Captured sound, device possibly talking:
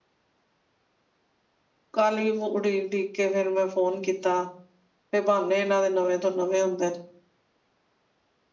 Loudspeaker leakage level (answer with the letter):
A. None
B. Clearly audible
A